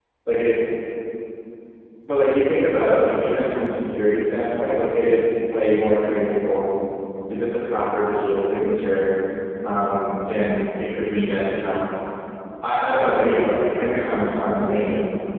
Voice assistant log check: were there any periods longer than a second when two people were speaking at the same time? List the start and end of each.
none

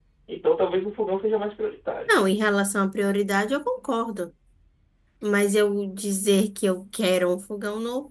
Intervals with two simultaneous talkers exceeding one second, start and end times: none

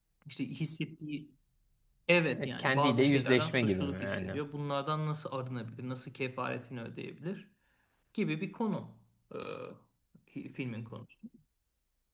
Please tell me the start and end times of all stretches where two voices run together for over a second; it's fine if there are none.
2.4-4.4

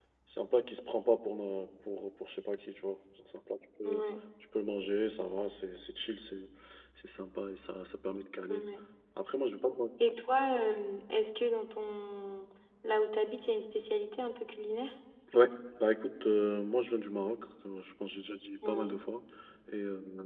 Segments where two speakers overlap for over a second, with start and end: none

